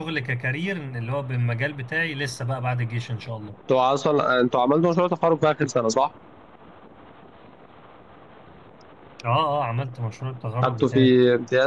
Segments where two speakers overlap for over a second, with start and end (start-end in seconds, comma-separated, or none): none